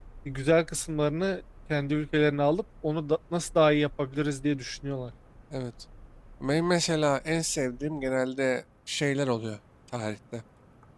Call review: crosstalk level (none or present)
none